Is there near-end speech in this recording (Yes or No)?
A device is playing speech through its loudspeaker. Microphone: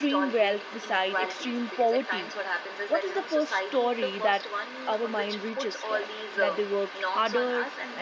Yes